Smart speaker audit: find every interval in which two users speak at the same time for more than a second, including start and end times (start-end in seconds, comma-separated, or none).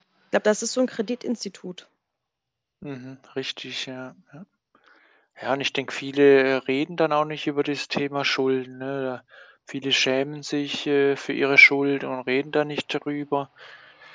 none